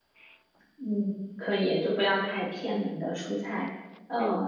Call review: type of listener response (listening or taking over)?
listening